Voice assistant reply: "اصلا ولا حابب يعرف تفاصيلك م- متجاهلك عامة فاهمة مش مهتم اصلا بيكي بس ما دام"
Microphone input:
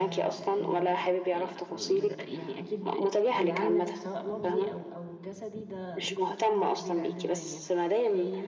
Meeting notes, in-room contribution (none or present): present